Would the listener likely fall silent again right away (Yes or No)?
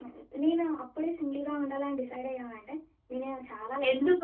No